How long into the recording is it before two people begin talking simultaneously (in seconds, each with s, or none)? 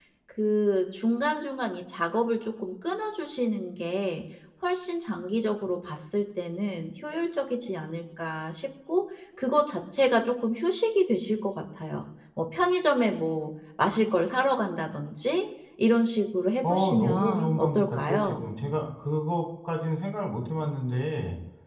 16.6 s